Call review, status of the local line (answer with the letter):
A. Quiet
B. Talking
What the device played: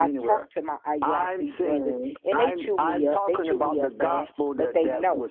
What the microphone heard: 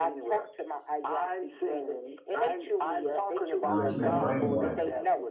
B